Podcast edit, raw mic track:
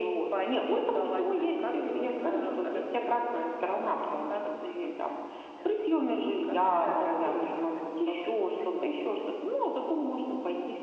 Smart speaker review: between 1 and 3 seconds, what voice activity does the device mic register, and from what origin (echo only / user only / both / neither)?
echo only